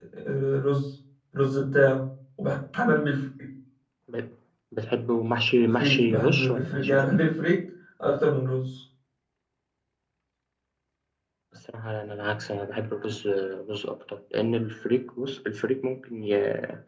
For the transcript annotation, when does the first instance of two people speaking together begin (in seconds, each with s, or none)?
5.6 s